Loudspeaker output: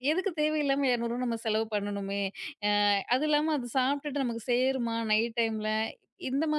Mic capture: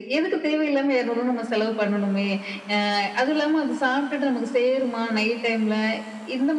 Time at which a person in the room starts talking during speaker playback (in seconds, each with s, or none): none